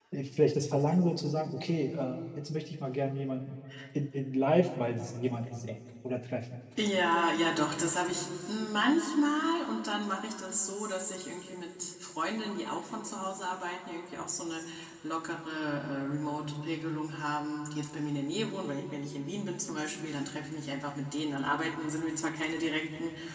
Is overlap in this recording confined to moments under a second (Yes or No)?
Yes